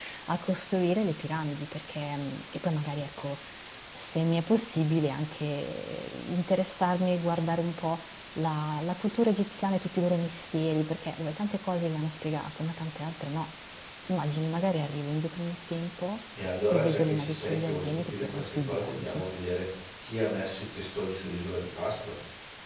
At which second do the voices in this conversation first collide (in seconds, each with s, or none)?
16.7 s